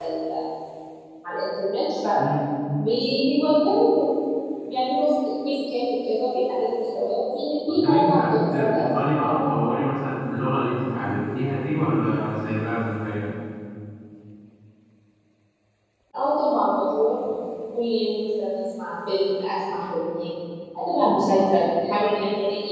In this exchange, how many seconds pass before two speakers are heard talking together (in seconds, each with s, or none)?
7.7 s